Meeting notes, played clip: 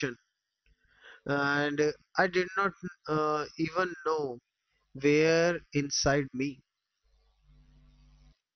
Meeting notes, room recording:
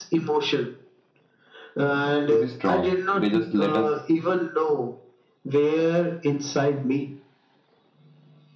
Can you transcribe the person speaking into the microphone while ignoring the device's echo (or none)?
to be strong, they just let us